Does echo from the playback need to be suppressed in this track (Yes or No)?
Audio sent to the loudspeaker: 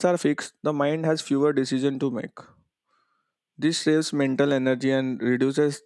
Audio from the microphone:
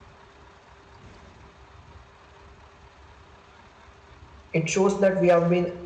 No